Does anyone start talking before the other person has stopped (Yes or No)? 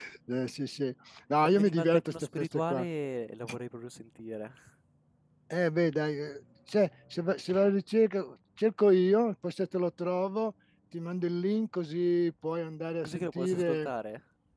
Yes